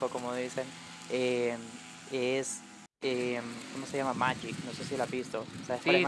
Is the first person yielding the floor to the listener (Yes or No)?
Yes